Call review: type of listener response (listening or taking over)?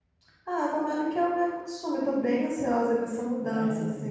listening